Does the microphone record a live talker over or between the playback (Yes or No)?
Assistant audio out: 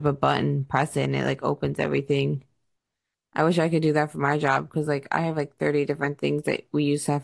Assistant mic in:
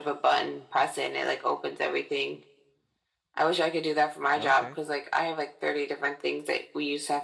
Yes